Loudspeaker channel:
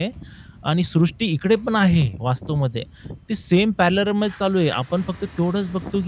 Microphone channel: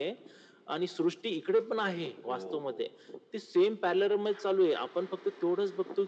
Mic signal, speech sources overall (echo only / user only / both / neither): both